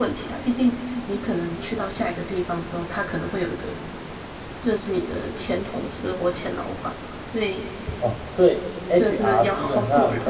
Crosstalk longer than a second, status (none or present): present